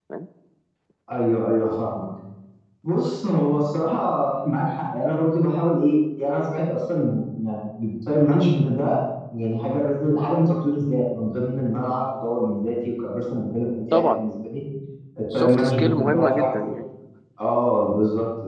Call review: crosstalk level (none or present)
present